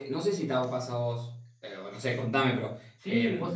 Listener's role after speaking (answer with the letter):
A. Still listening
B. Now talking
B